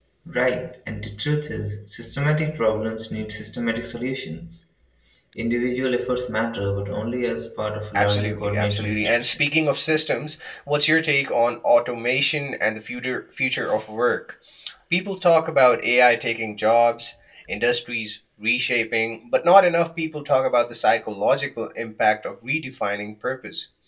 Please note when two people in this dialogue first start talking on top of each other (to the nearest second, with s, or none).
8 s